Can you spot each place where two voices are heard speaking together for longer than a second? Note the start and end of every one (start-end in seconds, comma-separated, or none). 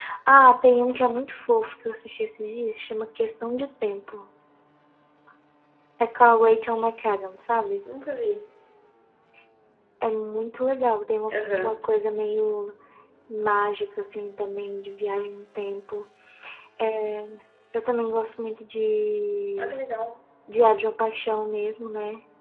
none